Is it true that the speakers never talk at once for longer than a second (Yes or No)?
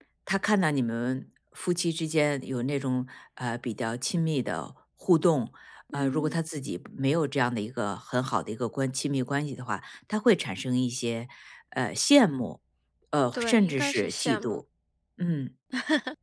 No